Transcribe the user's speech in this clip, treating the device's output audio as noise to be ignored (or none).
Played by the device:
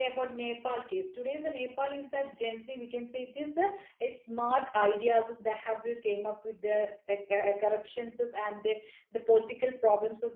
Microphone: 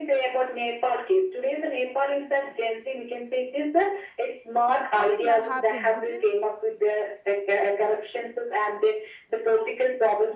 and i think that happens within